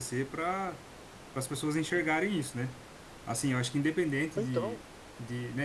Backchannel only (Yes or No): Yes